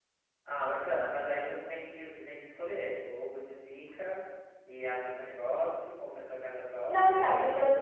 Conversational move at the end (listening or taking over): taking over